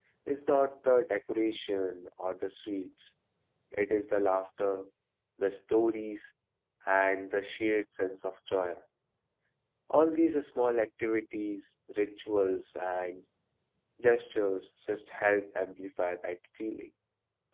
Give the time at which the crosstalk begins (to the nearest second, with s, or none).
none